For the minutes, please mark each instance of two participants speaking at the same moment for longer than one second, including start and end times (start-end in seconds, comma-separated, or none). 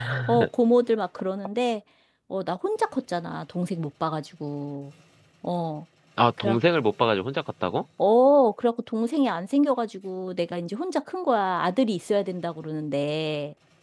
none